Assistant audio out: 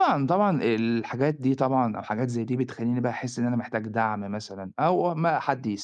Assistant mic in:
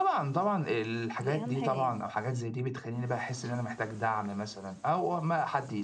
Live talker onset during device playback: 1.2 s

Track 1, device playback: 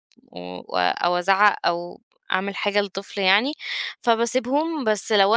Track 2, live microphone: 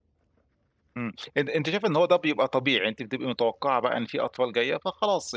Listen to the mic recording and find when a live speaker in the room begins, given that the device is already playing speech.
1.0 s

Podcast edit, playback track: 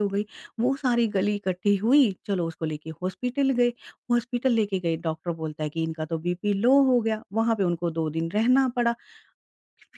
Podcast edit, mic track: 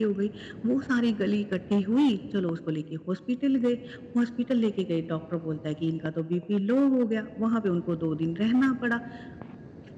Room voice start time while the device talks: none

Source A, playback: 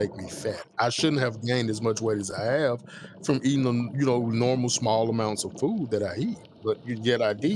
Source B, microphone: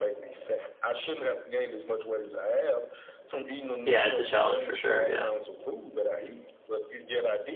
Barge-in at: 3.8 s

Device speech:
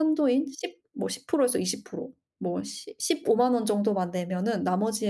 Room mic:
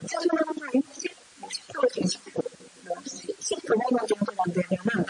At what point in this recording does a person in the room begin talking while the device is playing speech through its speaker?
none

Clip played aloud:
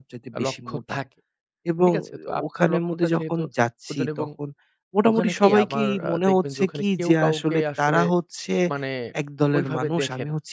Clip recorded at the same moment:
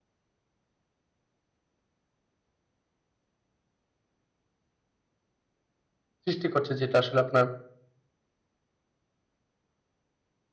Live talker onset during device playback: 6.2 s

